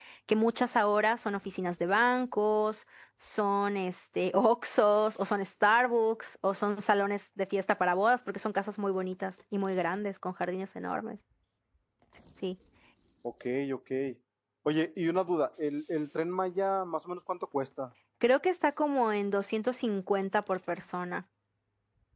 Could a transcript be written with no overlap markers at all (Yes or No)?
Yes